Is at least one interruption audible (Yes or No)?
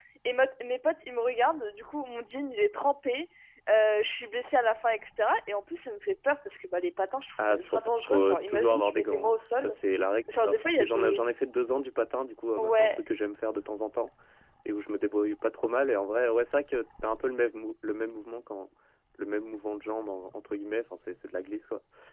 Yes